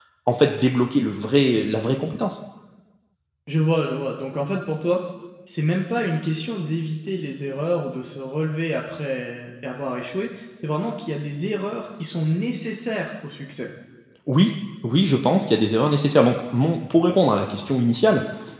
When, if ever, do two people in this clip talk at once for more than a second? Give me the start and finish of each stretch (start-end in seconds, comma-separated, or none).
none